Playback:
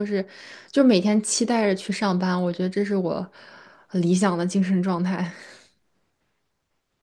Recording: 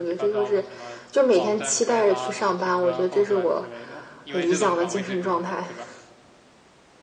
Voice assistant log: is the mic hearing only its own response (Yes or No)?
No